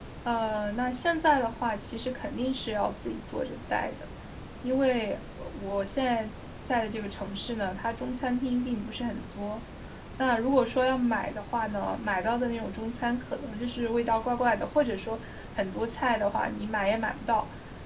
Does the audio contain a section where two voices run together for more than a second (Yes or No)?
No